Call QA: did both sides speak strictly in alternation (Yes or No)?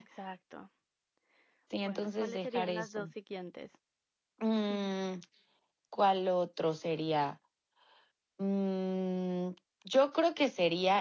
No